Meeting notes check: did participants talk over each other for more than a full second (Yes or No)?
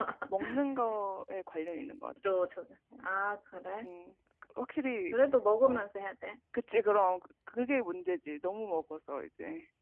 No